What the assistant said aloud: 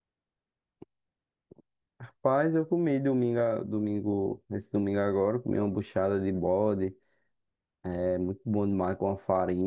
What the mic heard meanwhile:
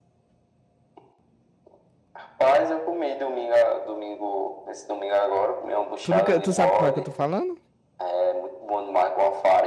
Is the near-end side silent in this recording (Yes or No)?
No